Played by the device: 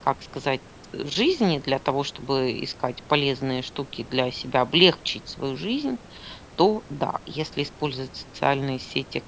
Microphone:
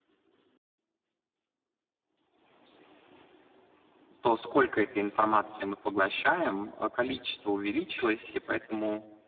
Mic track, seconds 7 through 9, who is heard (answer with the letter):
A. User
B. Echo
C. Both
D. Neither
A